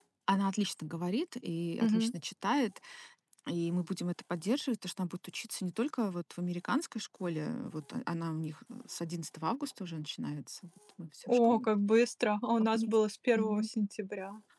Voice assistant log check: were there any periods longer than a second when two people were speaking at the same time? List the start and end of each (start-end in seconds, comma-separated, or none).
none